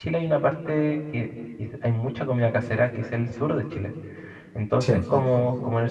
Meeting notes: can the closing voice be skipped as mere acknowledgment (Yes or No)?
Yes